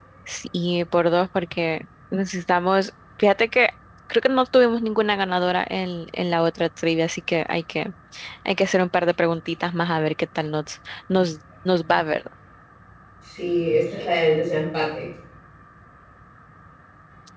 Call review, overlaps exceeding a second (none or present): none